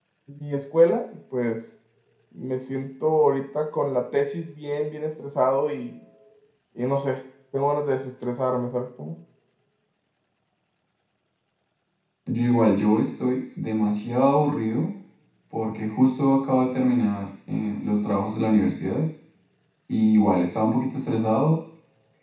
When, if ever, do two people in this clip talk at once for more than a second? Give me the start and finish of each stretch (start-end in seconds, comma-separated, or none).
none